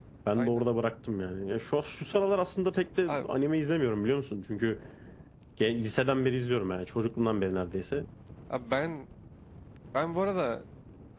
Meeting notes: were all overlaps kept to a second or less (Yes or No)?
Yes